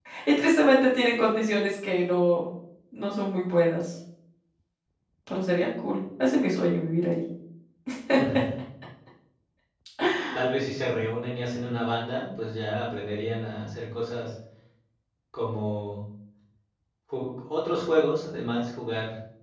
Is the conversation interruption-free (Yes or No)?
Yes